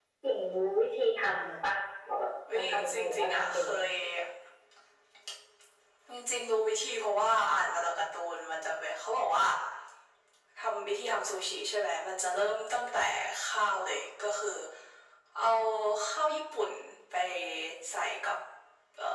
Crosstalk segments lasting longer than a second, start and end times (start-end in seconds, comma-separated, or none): 2.5-3.8